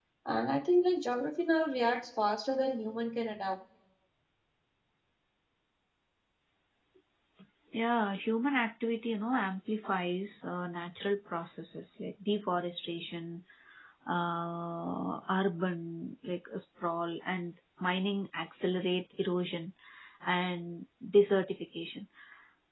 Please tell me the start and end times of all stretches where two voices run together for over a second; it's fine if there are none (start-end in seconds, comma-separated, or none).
none